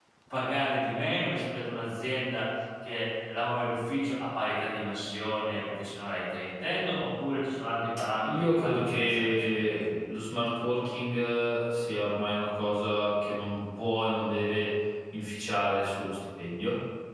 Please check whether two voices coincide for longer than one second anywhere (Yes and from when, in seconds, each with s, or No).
Yes, from 8.2 s